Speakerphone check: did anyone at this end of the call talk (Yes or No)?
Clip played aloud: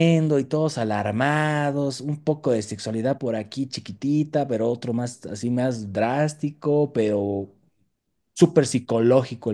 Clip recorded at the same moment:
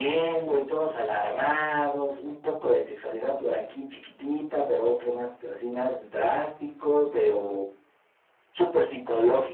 No